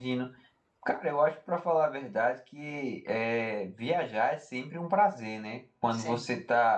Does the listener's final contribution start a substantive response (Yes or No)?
No